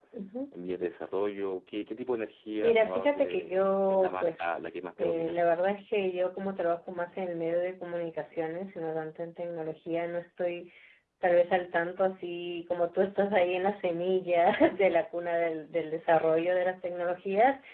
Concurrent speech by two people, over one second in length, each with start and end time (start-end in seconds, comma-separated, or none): 2.6-5.3